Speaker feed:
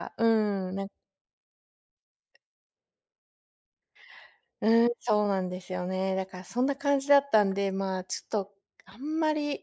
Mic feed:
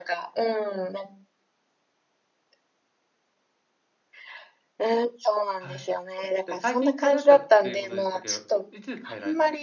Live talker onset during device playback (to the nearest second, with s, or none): 6 s